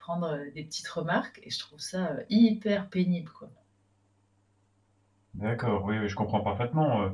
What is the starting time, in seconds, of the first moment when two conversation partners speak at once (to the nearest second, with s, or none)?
none